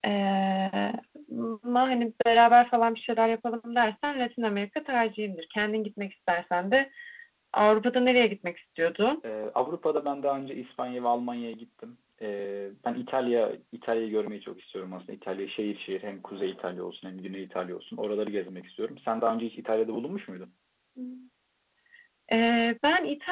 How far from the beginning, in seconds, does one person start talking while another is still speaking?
none

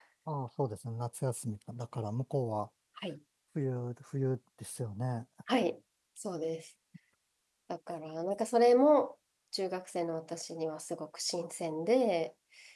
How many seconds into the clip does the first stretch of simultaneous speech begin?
none

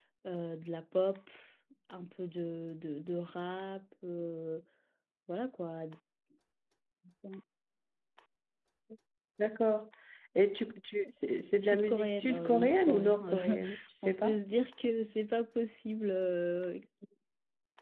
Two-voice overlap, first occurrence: 11.5 s

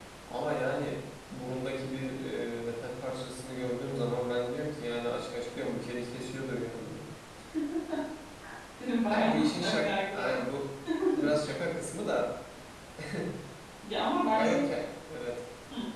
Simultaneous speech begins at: 9.1 s

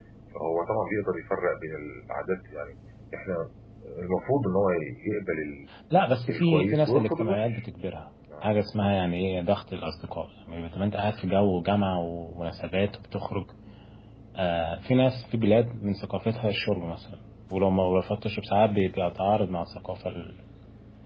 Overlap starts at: 6.3 s

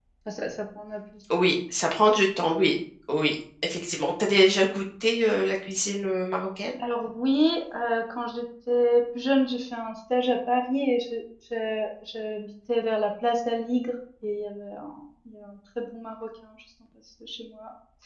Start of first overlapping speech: none

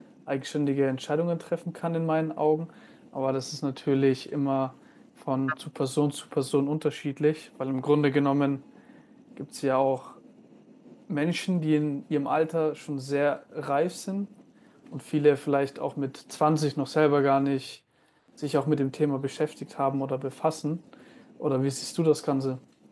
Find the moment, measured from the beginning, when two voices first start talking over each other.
none

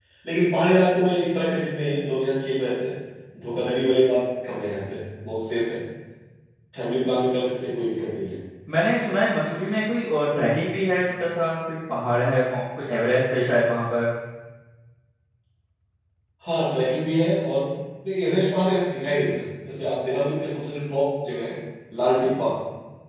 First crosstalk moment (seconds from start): none

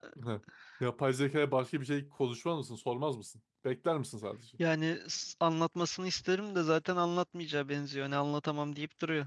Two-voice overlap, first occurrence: none

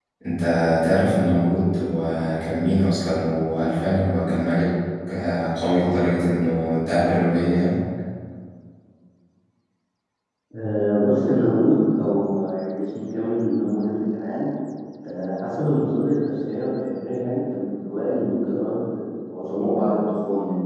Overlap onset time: none

